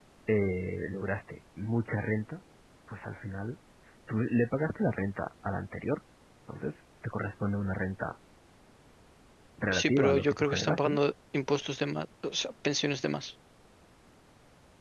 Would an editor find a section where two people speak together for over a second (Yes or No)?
Yes